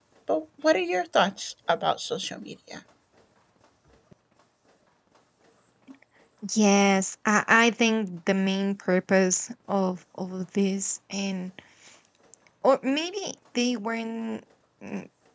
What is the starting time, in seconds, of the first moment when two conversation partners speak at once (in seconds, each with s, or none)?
none